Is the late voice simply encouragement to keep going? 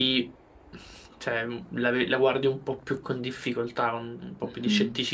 No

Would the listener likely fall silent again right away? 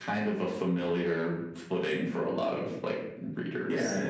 No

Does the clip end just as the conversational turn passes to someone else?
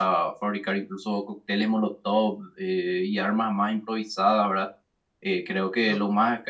No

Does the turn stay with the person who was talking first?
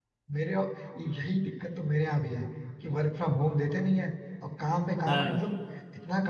Yes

